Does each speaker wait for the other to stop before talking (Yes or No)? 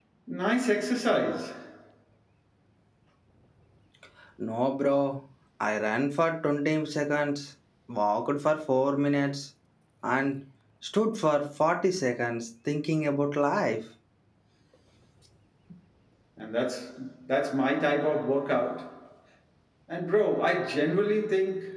Yes